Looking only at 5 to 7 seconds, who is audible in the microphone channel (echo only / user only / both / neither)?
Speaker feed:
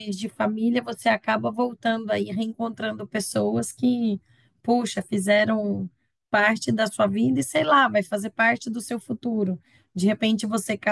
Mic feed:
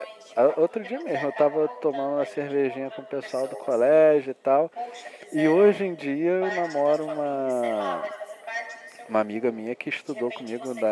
both